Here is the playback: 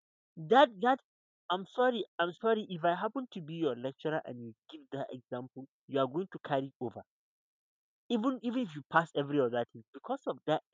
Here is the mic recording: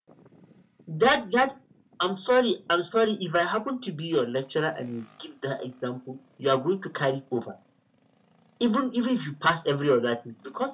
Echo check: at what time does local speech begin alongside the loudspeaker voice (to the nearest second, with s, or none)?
none